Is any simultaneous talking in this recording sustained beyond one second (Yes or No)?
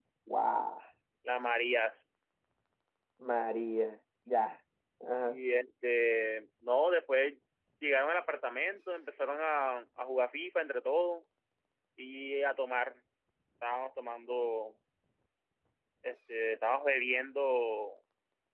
No